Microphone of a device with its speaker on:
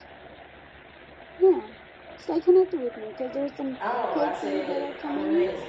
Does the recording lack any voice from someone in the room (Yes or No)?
No